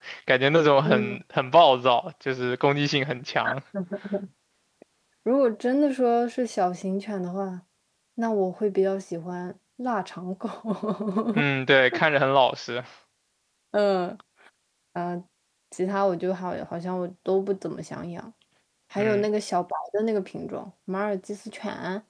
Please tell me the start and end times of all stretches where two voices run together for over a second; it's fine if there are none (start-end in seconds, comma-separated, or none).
none